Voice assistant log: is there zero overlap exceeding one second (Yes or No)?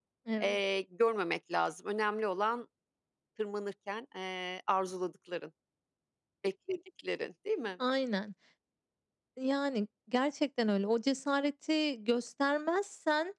Yes